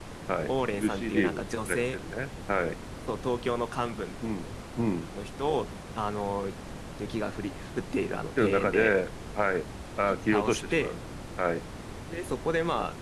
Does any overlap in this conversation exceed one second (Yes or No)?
Yes